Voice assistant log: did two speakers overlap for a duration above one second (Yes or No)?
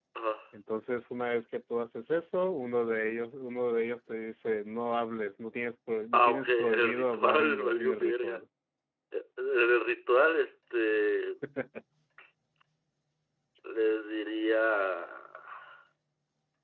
Yes